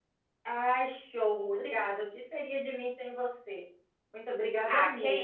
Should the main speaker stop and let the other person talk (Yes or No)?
Yes